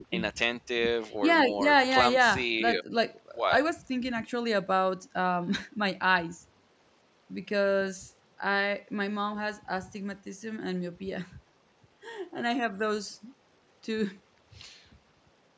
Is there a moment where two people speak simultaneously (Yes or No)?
Yes